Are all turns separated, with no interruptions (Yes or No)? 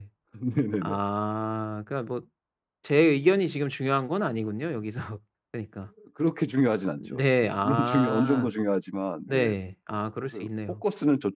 No